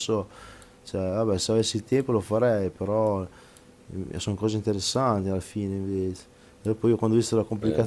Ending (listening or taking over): listening